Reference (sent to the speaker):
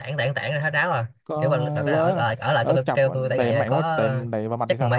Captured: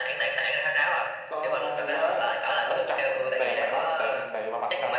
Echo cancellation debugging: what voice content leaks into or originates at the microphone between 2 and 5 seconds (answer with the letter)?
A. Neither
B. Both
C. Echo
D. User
C